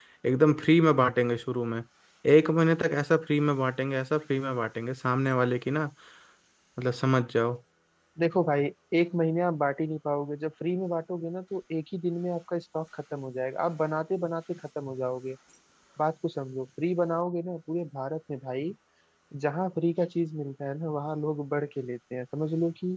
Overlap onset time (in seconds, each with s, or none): none